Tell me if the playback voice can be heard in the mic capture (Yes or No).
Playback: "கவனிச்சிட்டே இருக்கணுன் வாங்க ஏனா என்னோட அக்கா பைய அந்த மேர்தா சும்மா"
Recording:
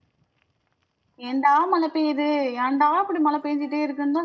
No